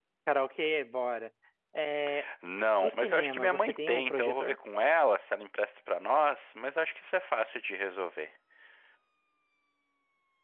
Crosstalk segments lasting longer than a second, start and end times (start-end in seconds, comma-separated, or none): 2.8-4.6